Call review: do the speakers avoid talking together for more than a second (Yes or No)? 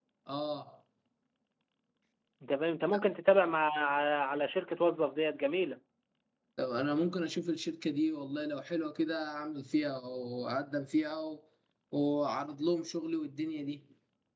Yes